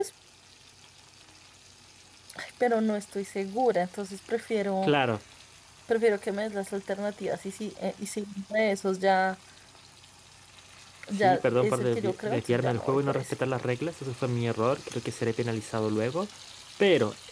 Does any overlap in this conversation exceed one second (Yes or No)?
Yes